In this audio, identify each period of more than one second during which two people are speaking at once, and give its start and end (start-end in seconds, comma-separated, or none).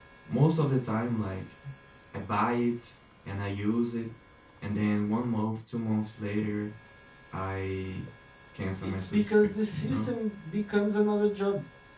8.8-10.1